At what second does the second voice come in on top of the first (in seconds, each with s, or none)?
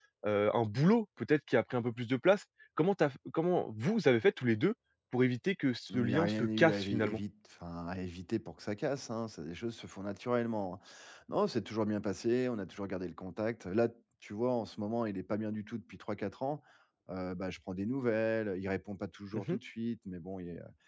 5.9 s